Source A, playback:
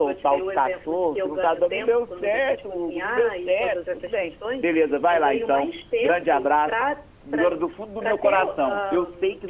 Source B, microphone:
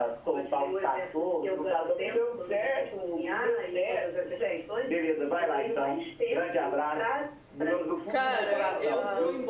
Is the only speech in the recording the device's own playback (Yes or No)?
No